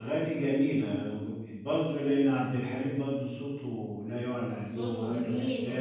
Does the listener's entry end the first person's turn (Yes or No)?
Yes